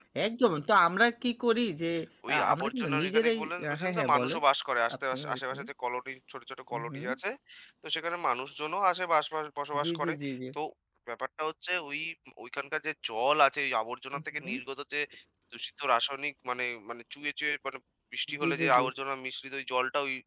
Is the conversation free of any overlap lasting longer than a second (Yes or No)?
No